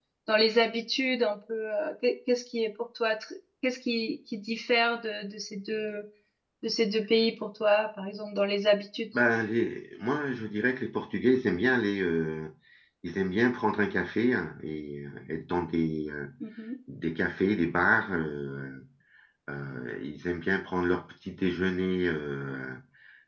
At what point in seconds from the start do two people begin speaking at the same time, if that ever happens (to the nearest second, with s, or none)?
none